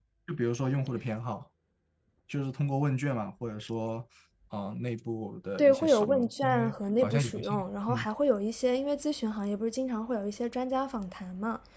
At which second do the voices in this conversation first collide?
5.6 s

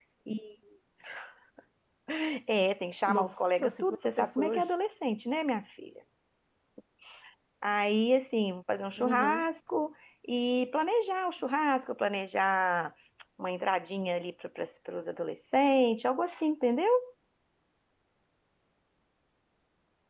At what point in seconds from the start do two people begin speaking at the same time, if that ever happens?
3.1 s

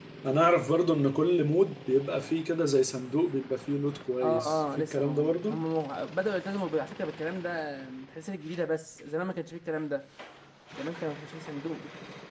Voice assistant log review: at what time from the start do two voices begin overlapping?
4.2 s

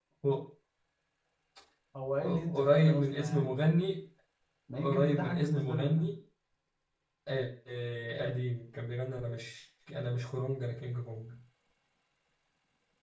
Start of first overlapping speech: 2.5 s

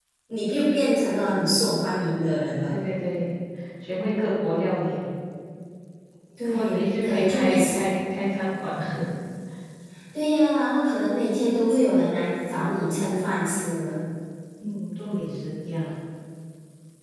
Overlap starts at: 6.5 s

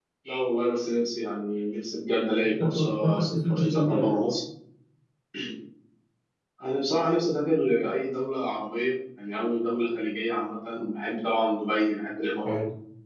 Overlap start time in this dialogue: 2.6 s

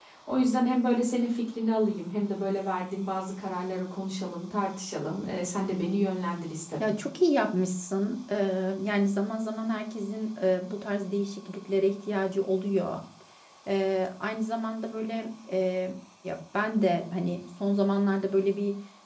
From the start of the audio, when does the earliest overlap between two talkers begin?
none

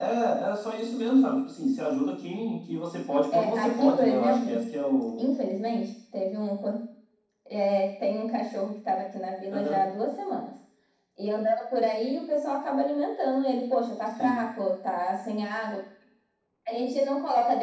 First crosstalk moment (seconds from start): 3.3 s

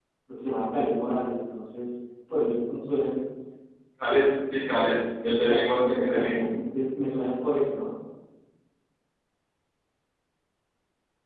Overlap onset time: 5.2 s

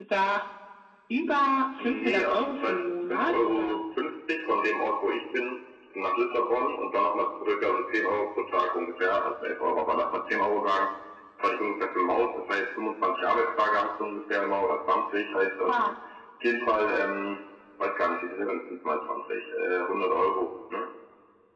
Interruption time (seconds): 1.8 s

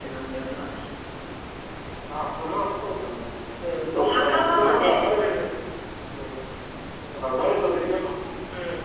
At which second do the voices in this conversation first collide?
3.8 s

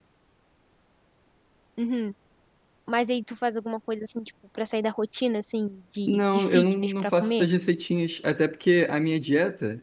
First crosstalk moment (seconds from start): 6.1 s

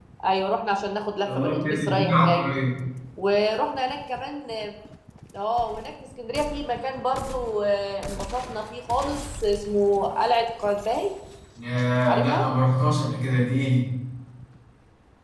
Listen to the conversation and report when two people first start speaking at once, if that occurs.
1.2 s

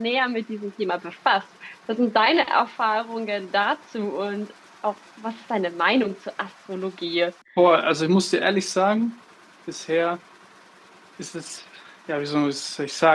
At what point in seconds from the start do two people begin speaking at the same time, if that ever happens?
none

